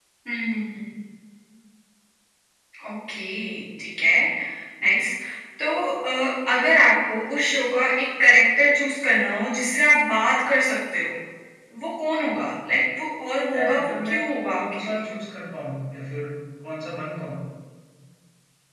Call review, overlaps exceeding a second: present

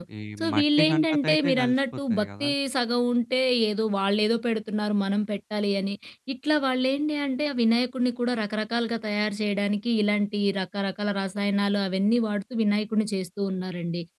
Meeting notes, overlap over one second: present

